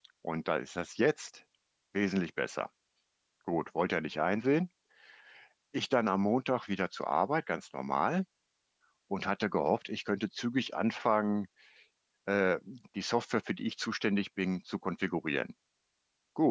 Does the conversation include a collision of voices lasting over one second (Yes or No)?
No